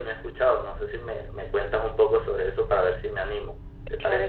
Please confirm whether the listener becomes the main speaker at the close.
Yes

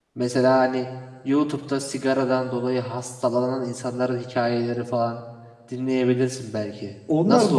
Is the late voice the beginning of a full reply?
Yes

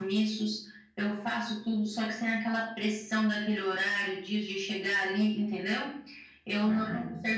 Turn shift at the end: No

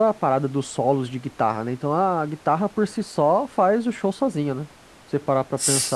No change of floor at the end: No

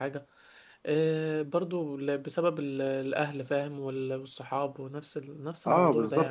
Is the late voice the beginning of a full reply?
Yes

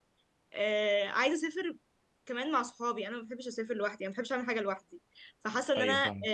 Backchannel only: Yes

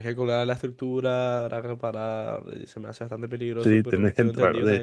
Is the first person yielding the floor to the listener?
Yes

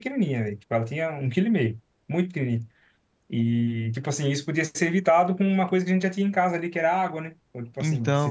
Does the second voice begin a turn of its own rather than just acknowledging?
No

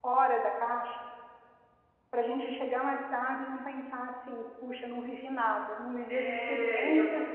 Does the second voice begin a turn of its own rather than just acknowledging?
Yes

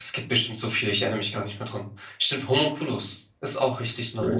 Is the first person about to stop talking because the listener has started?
Yes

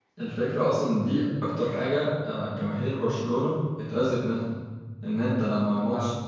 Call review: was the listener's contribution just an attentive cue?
Yes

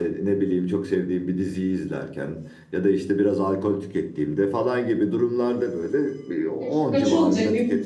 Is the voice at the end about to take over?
Yes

